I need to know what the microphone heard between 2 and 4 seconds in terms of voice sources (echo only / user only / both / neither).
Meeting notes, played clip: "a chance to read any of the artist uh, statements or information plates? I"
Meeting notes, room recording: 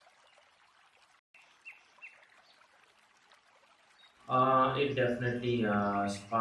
neither